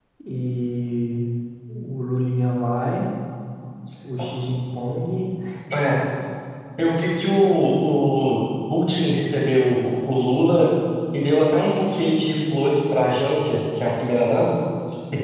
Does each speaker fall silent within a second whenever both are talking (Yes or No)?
Yes